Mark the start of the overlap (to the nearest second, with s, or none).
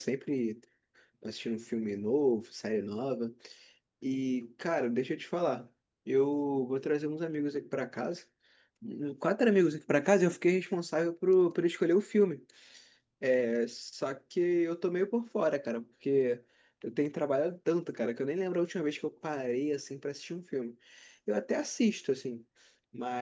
none